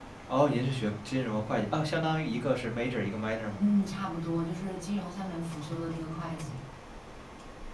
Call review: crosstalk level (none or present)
none